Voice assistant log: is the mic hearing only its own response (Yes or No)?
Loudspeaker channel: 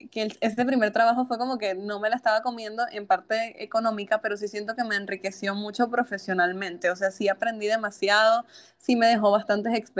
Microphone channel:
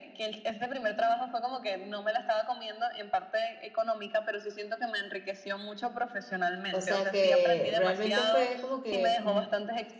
No